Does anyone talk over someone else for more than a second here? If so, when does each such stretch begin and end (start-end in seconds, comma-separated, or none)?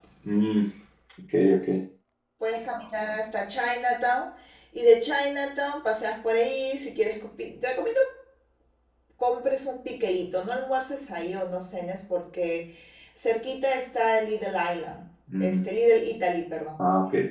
none